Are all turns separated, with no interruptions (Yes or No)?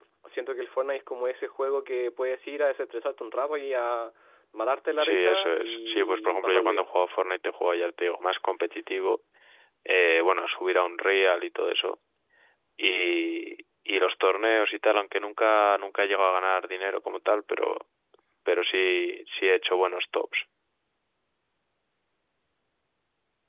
No